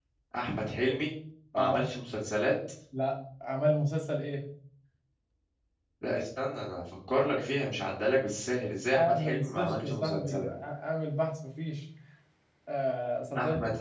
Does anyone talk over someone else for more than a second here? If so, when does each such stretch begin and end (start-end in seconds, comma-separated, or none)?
8.9-10.5